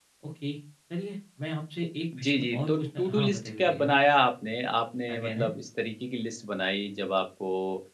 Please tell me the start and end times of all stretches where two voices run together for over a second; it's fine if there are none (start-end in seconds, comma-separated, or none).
2.2-3.9